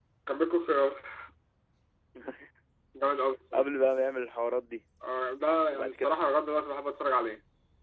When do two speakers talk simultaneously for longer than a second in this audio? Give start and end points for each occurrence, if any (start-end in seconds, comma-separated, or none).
none